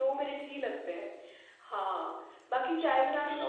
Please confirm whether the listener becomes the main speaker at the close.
Yes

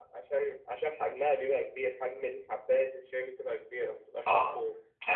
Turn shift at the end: Yes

